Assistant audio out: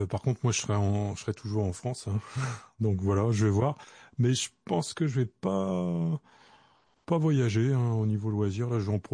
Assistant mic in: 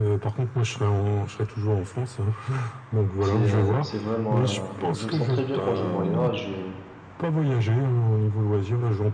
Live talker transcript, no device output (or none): C'est, euh, c'est vraiment, un- je me sens très bien quand je voyage. euh,